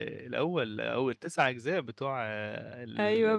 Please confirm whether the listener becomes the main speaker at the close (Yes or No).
Yes